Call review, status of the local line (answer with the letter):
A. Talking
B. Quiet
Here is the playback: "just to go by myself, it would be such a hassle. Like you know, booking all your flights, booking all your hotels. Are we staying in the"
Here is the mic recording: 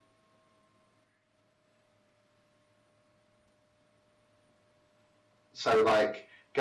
A